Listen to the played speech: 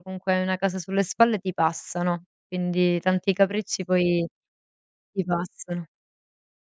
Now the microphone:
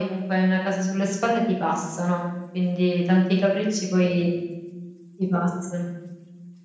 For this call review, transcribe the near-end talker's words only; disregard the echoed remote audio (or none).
none